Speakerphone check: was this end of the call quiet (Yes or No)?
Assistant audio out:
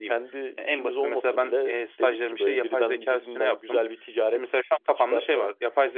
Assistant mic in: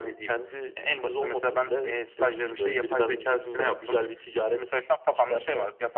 Yes